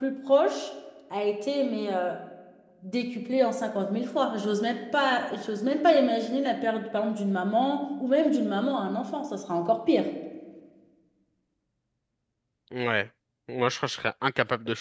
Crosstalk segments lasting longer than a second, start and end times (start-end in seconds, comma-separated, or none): none